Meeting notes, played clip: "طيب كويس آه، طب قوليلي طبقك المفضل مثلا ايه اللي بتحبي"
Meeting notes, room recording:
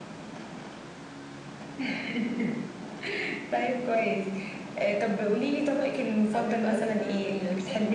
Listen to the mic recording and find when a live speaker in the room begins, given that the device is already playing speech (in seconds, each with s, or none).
6.3 s